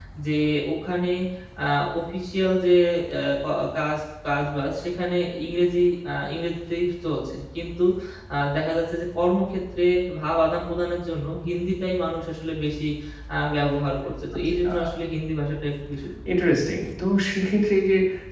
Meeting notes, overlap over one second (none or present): none